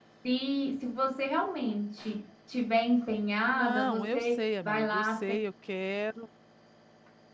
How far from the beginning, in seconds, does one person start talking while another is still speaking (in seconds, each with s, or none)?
3.5 s